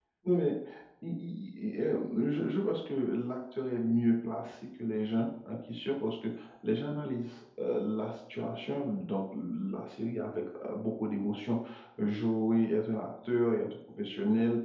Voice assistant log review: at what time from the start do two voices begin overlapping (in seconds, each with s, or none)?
none